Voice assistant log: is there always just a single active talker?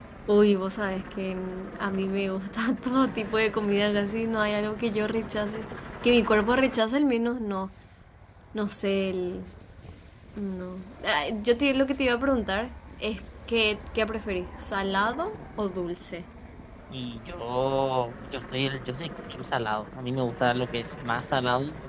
Yes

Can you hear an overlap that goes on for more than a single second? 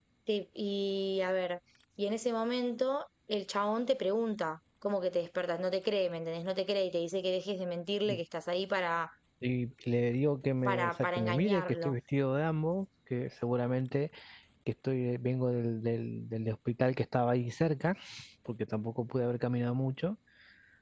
Yes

